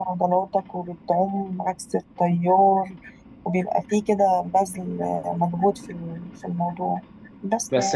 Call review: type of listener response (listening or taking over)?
taking over